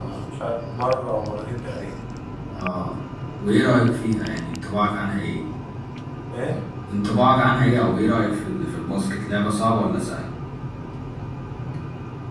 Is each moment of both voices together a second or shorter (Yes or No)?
Yes